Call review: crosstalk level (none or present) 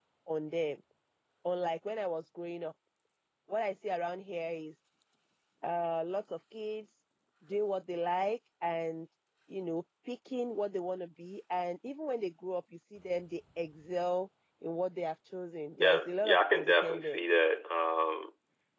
present